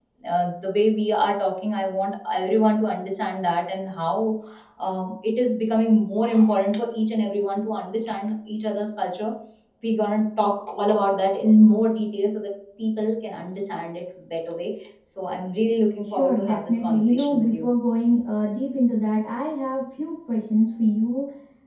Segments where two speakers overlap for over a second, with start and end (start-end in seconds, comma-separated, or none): 16.0-17.7